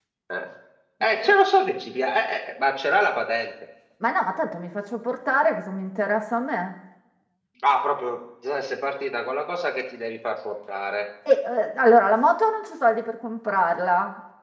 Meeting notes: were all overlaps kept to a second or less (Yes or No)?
Yes